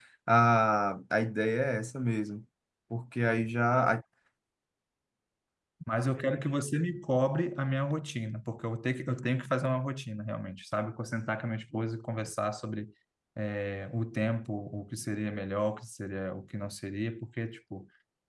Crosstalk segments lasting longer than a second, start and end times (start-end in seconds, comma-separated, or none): none